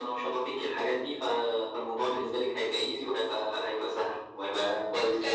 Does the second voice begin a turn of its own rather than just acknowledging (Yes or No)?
Yes